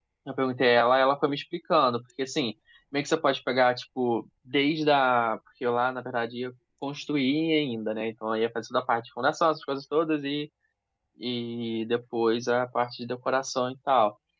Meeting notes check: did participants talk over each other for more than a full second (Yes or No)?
No